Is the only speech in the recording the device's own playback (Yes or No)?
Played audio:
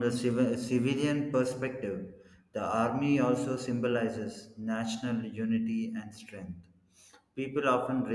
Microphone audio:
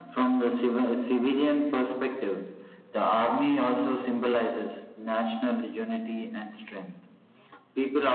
Yes